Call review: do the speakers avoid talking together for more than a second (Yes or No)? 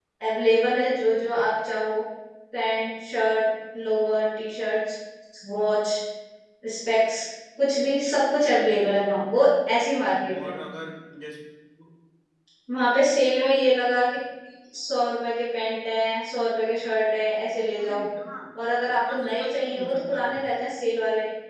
No